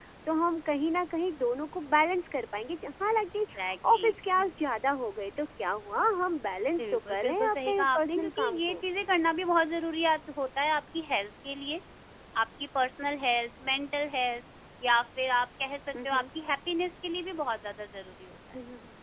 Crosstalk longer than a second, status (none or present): present